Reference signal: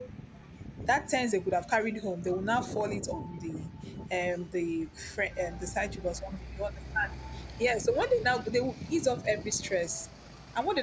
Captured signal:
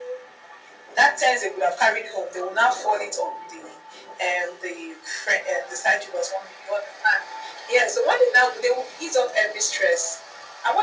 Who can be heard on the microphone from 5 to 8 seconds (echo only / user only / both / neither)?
echo only